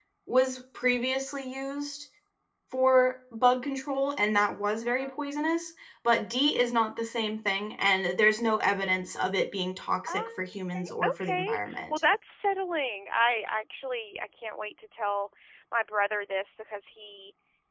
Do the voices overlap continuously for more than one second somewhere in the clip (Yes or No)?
Yes